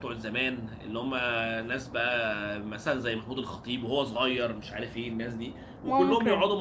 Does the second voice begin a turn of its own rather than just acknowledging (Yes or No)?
No